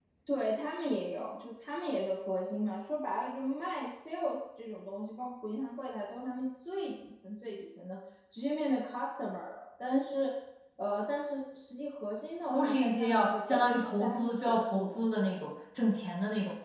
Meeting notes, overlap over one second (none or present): present